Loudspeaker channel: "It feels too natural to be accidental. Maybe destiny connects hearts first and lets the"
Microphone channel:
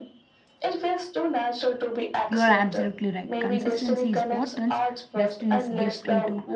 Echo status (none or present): present